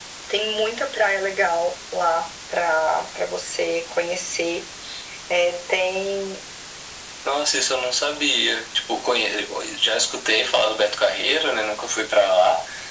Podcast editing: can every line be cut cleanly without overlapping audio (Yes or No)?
Yes